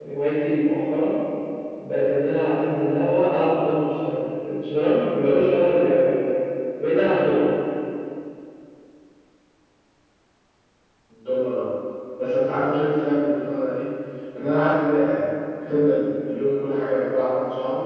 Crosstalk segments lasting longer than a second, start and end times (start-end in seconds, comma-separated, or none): none